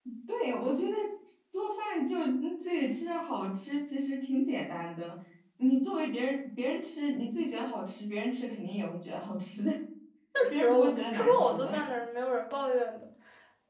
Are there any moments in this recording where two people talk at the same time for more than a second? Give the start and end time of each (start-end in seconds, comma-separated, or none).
10.5-11.7